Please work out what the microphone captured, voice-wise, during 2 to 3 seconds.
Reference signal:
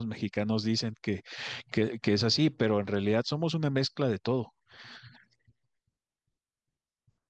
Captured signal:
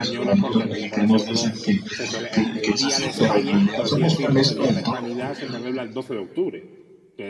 both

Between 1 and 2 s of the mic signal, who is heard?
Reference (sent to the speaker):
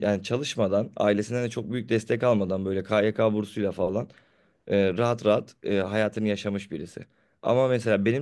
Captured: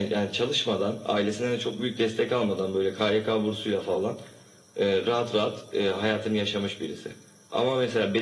echo only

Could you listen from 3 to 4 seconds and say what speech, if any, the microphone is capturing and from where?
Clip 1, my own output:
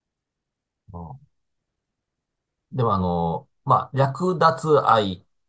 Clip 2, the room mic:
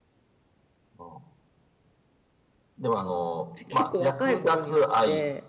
both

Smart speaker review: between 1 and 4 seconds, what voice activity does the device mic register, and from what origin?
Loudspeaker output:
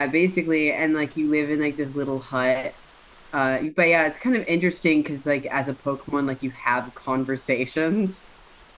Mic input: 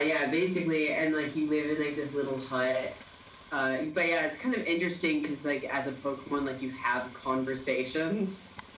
echo only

